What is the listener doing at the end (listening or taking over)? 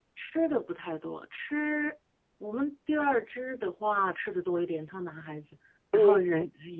listening